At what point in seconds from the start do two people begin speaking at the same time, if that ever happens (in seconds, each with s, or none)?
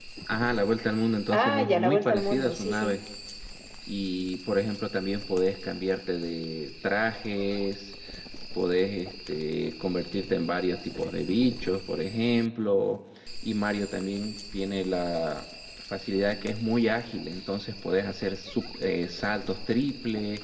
1.3 s